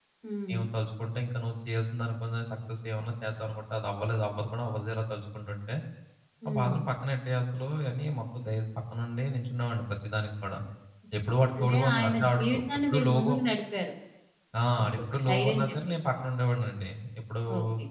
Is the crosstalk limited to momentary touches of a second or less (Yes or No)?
No